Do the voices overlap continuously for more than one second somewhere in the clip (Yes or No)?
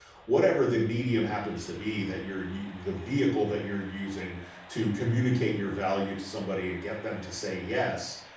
No